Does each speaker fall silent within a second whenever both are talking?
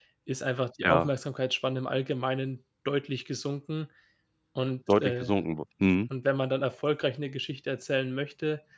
Yes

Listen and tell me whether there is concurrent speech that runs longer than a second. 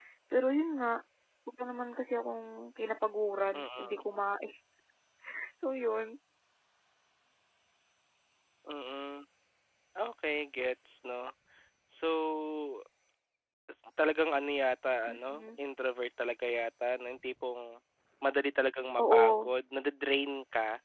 No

